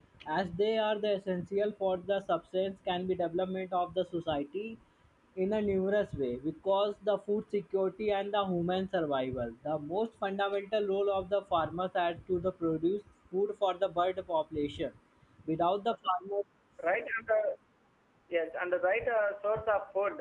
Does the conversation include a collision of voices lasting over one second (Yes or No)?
No